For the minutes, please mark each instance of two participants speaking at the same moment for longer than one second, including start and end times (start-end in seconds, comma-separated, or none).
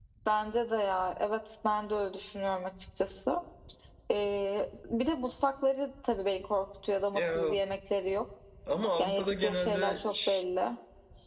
9.0-10.4